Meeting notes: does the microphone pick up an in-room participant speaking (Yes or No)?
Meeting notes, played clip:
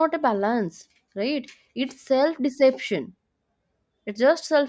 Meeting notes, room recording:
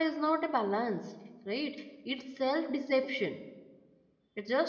No